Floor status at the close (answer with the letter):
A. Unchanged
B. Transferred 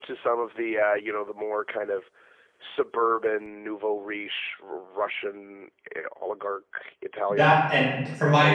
B